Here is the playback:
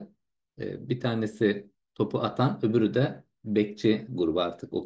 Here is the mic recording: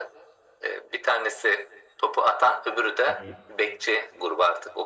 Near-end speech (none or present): present